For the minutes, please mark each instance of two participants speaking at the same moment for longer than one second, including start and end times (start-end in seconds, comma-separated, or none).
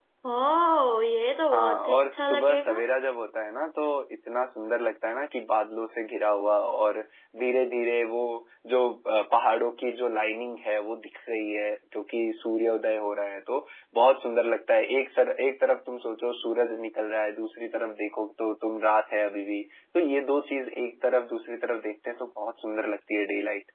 1.5-2.8